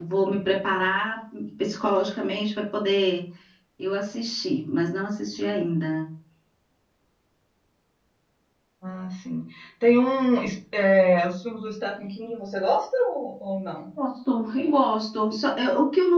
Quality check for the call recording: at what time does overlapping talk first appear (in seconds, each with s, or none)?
none